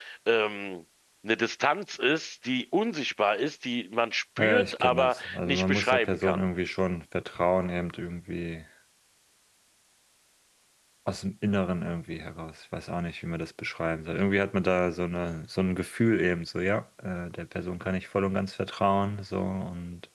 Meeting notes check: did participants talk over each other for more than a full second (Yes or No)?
Yes